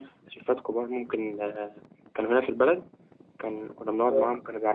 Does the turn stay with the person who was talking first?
Yes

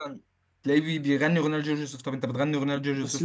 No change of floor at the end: No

